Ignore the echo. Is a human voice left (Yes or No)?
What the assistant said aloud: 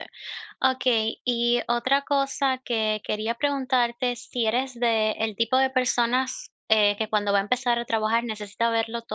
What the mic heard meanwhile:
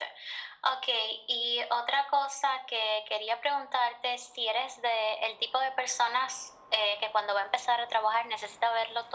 No